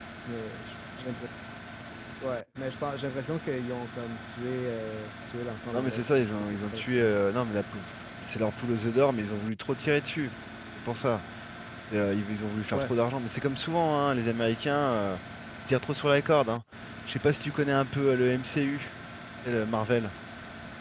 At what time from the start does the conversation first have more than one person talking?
5.7 s

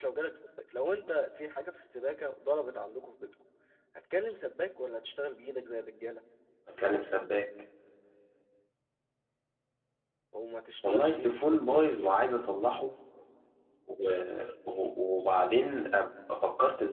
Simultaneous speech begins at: 10.8 s

